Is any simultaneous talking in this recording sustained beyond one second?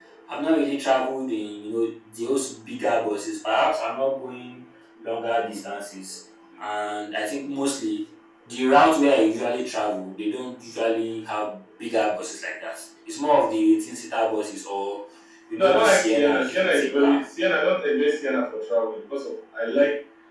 Yes, from 15.6 s

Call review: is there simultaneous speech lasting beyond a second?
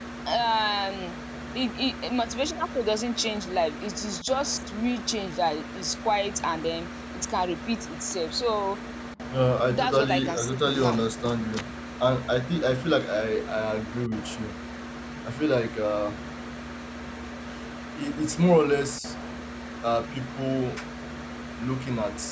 Yes, from 9.8 s

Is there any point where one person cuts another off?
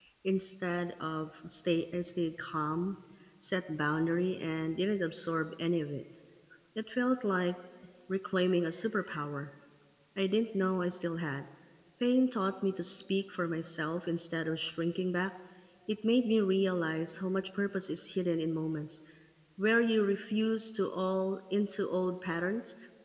No

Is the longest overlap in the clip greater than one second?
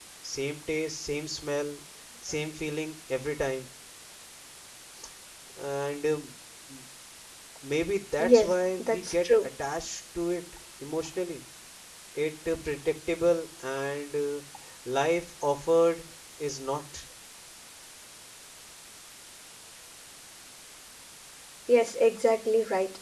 Yes, from 8.2 s

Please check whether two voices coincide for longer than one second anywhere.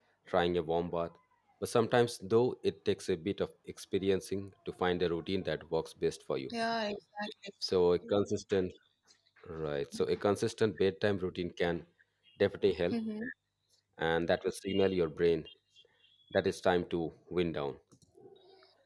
No

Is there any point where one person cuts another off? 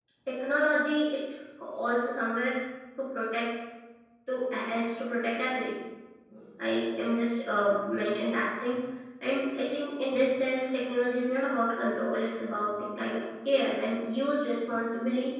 No

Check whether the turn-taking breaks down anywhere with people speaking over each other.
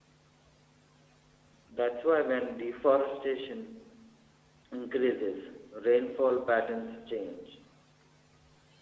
No

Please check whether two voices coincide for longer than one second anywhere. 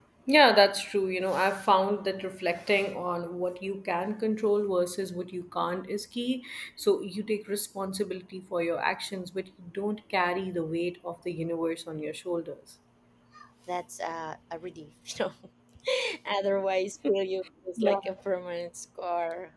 No

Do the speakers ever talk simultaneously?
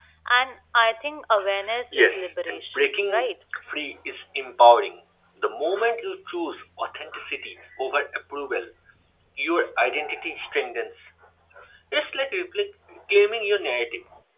Yes, from 1.9 s

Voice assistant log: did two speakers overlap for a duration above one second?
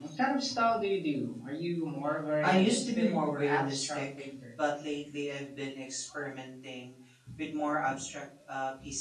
Yes, from 2.4 s

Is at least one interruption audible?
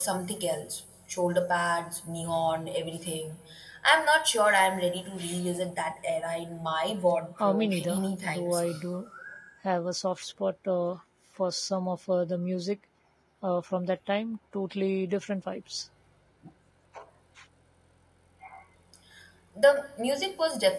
Yes, from 7.4 s

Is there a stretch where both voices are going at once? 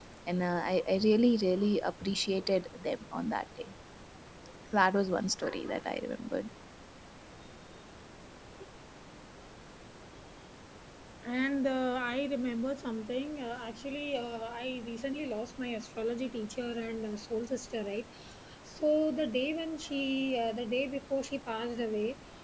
No

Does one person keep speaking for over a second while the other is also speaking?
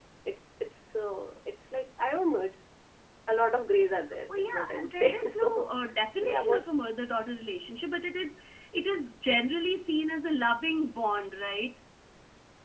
Yes, from 4.3 s

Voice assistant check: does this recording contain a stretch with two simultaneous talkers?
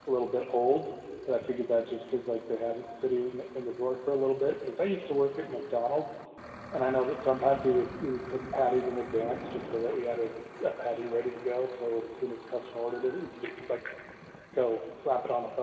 No

